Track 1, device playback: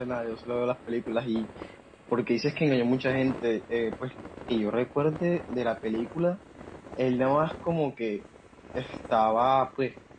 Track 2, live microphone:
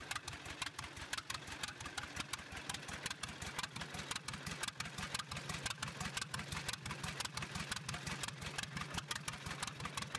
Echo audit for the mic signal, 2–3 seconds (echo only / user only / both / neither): neither